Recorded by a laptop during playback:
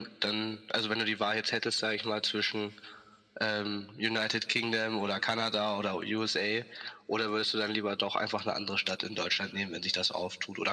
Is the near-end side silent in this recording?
Yes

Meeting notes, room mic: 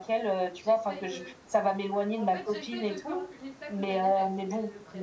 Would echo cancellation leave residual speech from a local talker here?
Yes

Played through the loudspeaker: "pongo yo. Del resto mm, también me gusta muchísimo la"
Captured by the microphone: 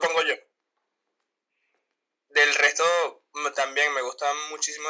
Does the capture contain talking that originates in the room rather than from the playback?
No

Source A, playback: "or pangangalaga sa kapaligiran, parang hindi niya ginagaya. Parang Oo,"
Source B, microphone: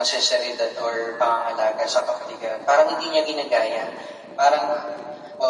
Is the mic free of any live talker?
Yes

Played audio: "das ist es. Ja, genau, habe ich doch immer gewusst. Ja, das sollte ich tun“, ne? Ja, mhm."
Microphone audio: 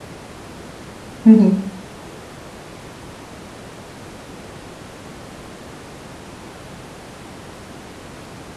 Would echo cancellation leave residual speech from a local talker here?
Yes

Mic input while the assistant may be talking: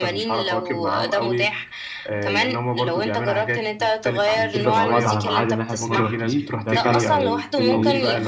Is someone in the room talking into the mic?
Yes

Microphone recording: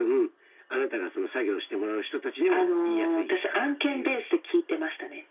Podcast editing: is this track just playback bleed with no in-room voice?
Yes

